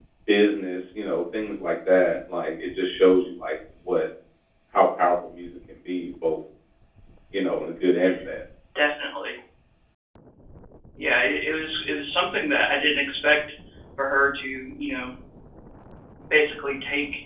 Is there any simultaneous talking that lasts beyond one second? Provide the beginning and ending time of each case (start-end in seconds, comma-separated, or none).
none